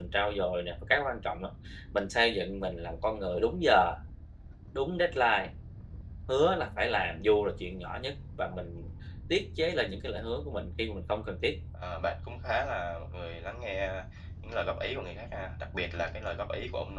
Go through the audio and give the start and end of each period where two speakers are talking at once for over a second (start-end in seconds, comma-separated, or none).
none